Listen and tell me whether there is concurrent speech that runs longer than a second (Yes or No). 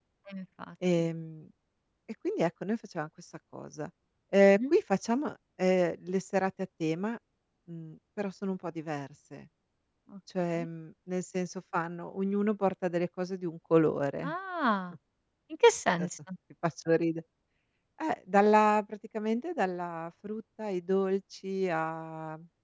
No